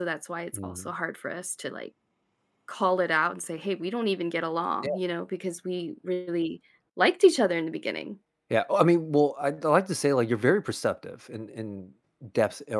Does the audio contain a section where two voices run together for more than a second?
No

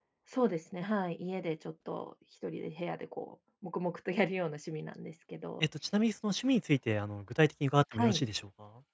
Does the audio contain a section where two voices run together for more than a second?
No

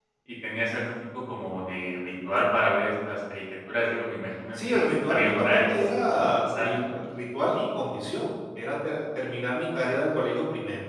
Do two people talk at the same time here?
Yes, from 4.5 s

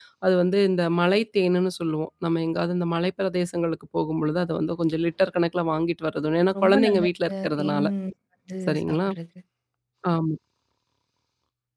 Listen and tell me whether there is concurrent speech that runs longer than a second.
Yes, from 6.6 s

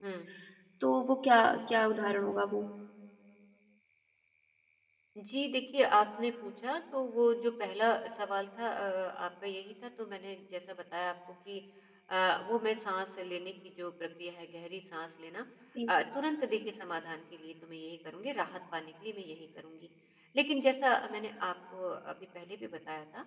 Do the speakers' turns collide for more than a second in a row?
No

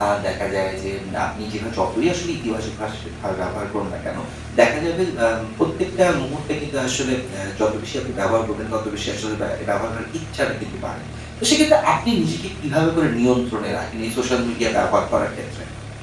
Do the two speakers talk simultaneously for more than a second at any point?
No

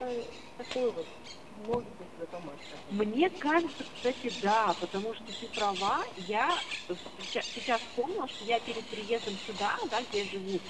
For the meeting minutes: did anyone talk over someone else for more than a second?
No

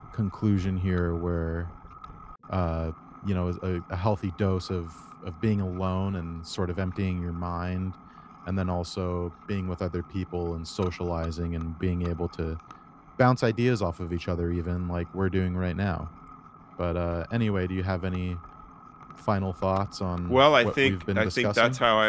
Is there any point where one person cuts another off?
Yes, from 20.3 s

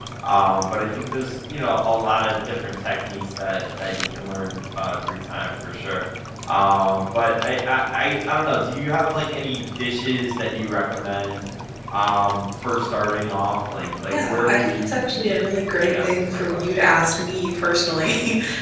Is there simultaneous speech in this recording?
Yes, from 14.1 s

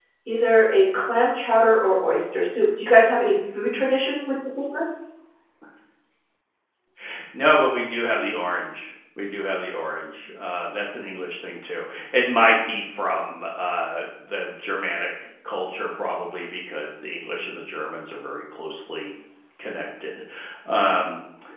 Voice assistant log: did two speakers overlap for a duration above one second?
No

